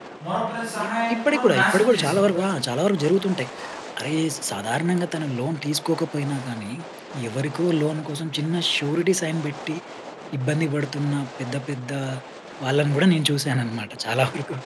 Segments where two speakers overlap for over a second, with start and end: 0.9-2.2

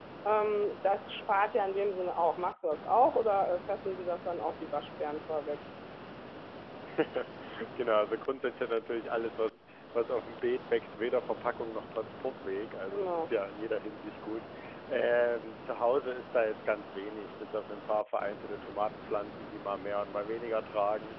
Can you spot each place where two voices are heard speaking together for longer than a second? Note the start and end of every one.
none

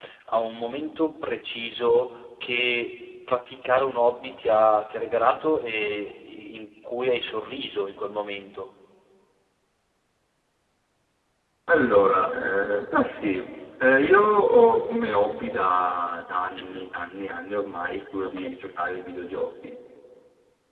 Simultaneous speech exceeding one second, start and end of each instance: none

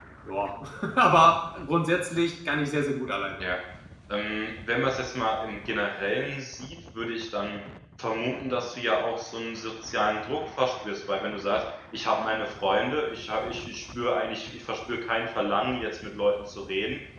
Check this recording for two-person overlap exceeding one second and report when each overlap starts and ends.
none

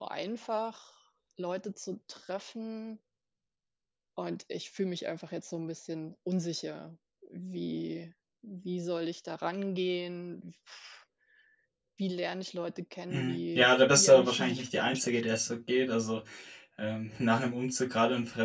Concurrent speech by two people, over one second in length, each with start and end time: 13.1-15.4

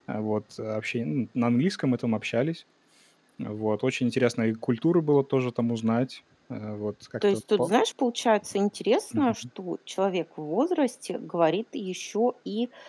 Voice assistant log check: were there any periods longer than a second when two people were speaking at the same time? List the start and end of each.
none

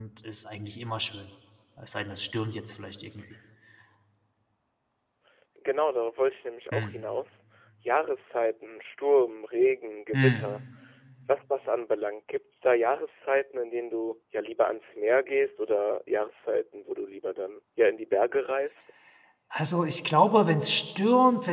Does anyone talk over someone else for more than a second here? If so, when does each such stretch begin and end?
none

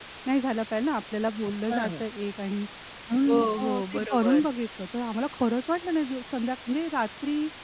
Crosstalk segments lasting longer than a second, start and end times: 3.2-4.5

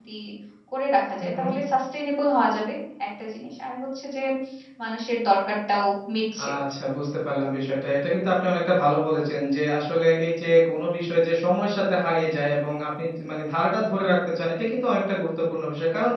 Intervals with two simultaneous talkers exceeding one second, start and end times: none

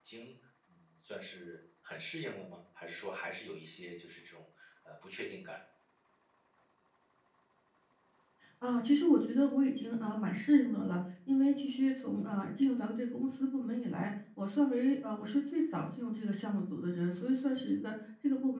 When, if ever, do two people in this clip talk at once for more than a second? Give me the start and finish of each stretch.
none

